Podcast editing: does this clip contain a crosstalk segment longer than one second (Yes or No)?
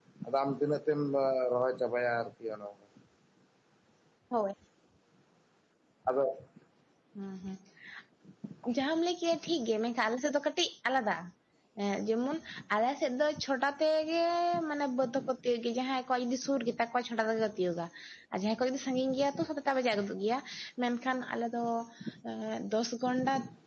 No